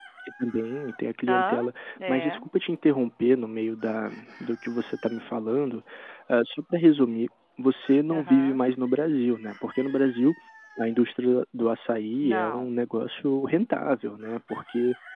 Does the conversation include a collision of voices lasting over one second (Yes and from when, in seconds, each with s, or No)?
No